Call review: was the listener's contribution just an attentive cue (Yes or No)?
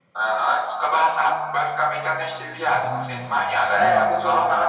No